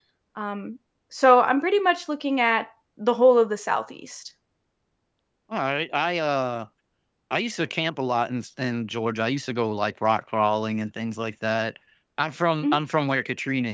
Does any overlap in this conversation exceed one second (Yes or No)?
No